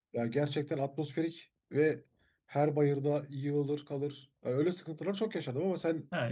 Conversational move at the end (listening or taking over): taking over